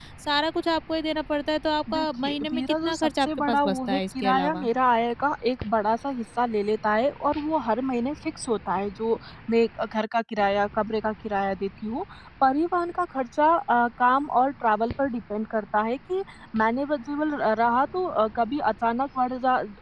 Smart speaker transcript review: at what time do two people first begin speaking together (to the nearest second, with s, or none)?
2 s